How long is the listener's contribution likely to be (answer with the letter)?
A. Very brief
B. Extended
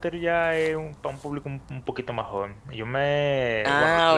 A